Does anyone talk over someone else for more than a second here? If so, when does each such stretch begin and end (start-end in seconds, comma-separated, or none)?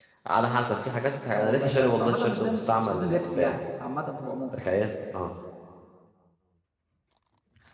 1.3-3.6